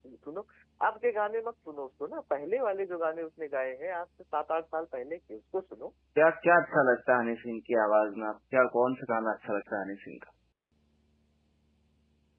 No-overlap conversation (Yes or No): Yes